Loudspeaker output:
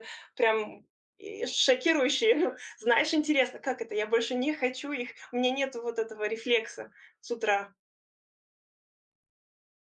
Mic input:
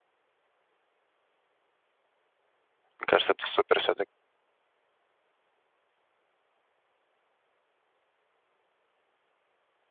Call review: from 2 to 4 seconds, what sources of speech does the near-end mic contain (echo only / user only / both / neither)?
user only